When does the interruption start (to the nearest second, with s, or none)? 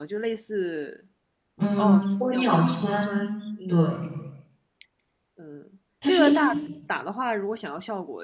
2 s